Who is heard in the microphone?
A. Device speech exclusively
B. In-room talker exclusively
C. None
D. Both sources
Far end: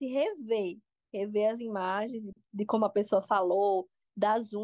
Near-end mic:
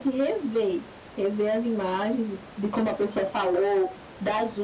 A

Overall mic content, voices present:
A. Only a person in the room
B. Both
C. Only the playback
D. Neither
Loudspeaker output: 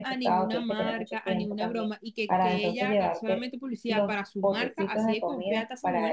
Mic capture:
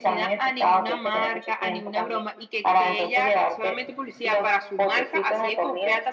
C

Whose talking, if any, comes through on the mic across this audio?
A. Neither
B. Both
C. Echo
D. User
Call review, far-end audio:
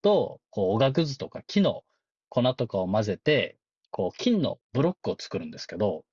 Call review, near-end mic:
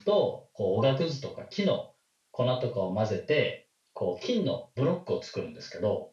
C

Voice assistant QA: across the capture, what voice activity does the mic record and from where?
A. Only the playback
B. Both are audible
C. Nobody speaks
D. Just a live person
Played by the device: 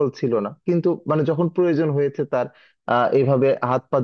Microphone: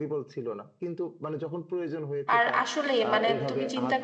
B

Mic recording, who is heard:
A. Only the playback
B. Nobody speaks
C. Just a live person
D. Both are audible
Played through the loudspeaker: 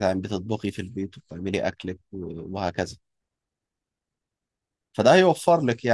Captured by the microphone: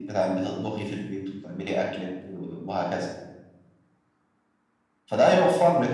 A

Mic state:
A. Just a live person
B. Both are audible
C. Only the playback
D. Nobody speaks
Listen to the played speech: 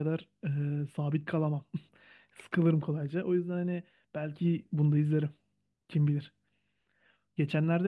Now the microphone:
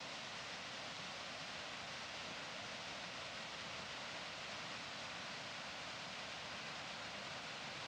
D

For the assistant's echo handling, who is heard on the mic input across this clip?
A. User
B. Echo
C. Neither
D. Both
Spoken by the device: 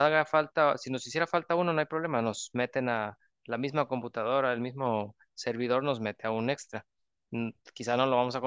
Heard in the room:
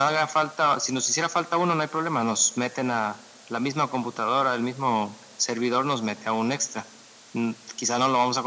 B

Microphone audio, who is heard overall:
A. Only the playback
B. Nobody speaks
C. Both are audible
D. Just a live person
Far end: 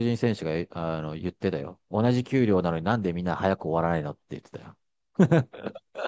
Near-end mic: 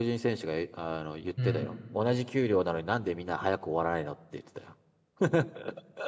C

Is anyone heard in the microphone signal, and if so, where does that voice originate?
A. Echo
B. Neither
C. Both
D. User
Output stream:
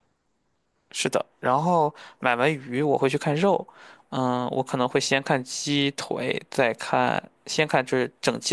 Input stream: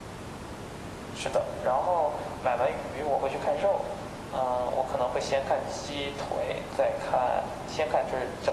A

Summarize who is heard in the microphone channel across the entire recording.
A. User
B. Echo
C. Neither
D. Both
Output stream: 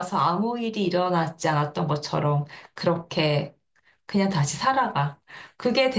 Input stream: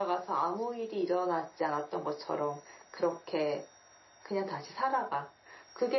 B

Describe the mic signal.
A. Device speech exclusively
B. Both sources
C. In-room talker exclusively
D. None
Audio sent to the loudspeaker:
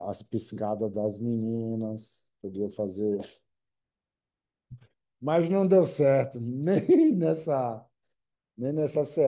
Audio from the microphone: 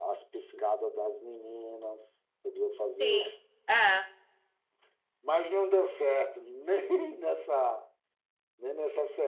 B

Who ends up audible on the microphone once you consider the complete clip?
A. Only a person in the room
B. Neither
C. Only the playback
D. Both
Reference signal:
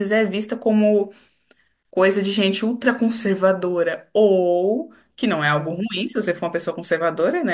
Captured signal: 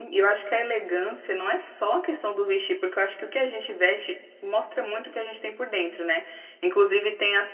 A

